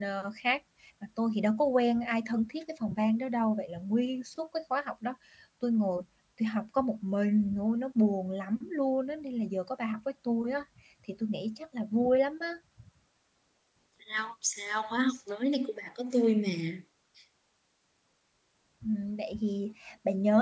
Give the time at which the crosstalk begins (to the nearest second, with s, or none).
none